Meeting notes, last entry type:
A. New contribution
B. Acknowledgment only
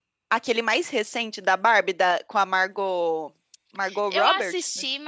A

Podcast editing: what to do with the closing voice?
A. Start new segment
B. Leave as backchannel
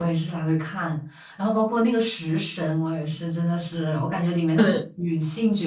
B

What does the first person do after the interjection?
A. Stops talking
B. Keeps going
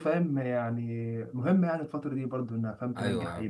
A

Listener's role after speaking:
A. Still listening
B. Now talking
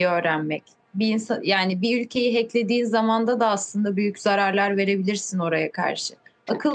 A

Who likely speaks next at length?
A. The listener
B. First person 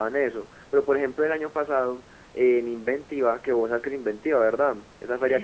A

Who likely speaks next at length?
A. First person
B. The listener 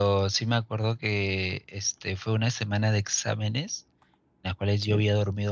A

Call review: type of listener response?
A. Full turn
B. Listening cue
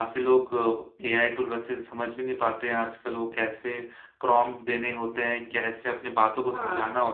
B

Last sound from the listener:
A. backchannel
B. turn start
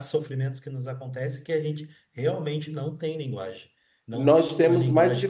B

